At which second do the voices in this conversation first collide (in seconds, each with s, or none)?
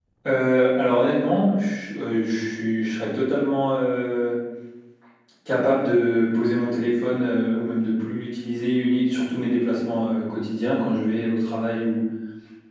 none